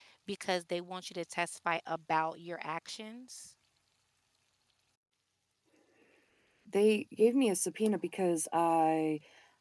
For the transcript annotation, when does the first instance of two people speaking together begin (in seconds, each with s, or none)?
none